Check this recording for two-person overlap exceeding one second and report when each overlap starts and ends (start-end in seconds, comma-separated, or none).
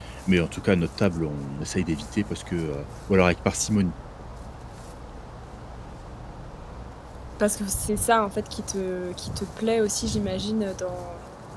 none